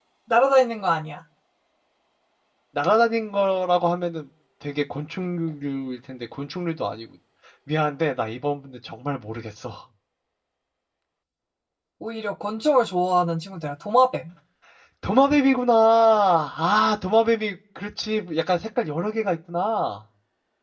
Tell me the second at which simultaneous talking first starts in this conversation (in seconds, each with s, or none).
none